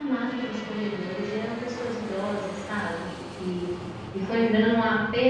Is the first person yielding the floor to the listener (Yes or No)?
No